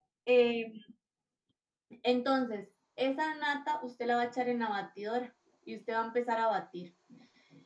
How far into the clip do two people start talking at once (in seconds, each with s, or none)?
none